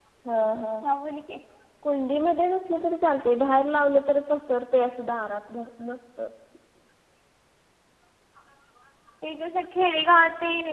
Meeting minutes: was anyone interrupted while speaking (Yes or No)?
No